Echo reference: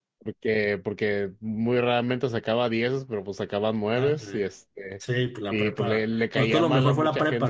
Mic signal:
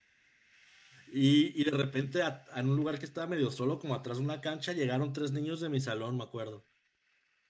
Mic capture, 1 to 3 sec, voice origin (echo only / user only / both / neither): user only